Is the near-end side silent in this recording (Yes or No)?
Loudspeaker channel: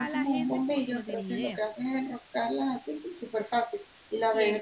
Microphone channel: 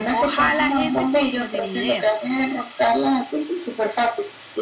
Yes